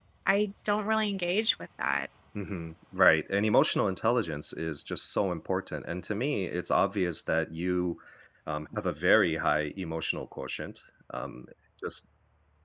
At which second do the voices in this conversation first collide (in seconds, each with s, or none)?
none